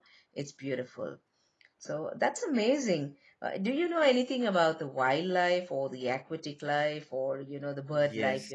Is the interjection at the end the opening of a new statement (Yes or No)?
Yes